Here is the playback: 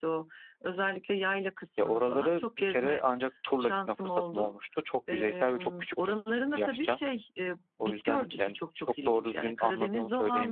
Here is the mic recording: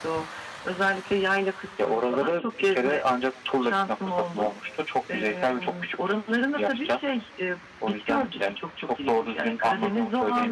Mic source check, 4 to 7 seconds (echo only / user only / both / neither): echo only